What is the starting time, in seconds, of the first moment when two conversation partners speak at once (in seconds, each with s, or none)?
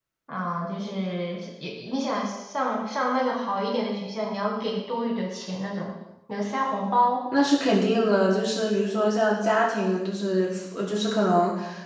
none